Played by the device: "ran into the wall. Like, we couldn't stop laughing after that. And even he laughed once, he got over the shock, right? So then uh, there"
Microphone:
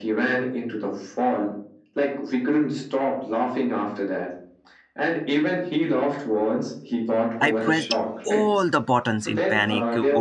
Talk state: both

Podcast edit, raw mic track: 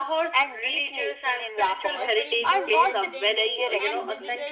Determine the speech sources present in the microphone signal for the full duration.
both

